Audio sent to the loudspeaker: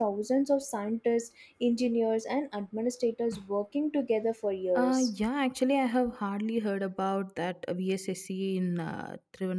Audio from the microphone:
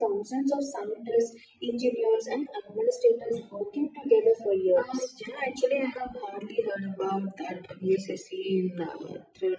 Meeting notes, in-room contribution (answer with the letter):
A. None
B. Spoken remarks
A